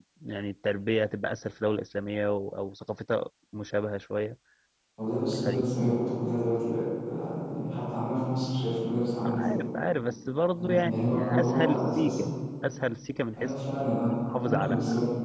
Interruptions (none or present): present